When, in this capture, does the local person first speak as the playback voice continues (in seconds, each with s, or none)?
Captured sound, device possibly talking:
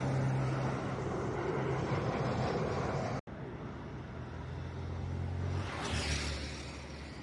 none